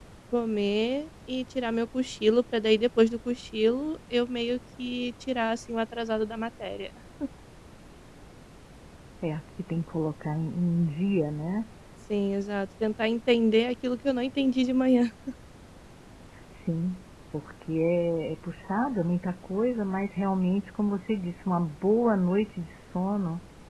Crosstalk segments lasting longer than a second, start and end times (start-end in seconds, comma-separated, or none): none